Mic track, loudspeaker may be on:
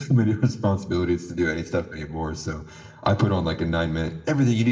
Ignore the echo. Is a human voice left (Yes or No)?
No